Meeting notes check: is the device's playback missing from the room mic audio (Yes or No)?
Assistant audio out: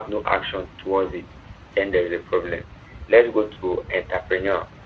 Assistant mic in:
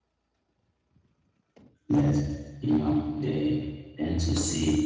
Yes